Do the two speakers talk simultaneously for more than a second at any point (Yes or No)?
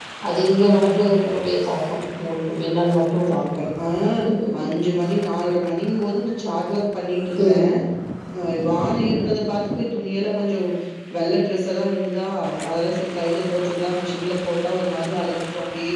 No